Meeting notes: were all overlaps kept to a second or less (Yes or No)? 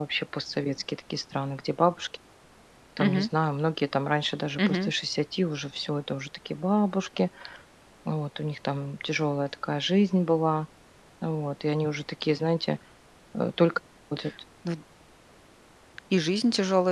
Yes